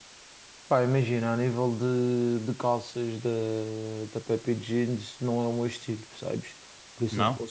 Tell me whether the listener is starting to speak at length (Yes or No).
No